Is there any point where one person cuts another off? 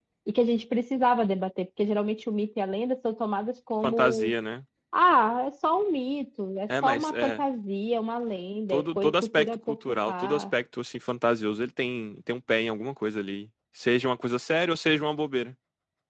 Yes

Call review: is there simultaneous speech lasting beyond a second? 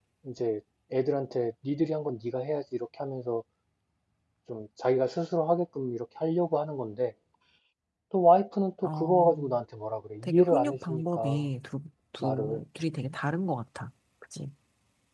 Yes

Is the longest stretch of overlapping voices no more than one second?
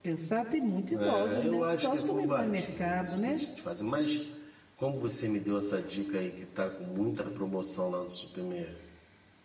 No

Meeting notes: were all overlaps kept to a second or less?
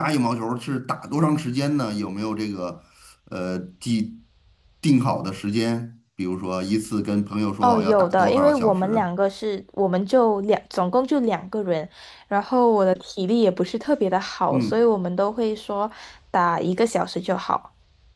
No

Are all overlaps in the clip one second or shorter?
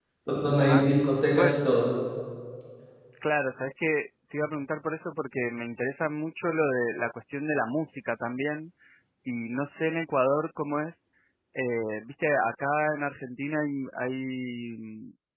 Yes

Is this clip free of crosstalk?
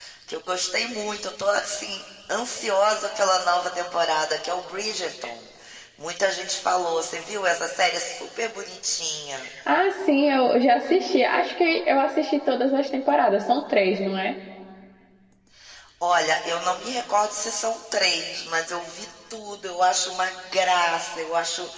Yes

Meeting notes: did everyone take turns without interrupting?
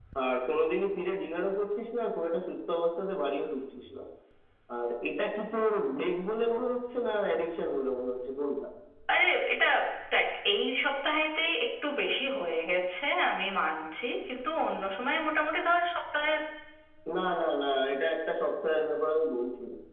Yes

